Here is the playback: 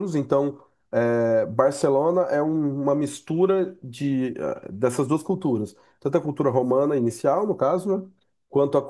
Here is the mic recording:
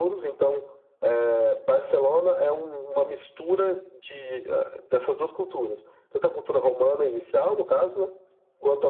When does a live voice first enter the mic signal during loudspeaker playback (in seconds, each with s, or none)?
none